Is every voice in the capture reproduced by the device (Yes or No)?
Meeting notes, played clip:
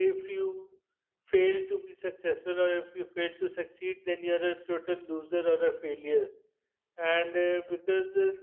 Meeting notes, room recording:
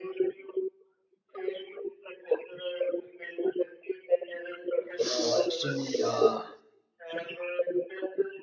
No